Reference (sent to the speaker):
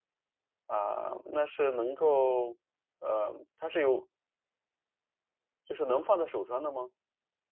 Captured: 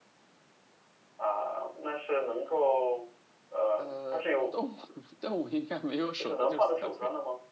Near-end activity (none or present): present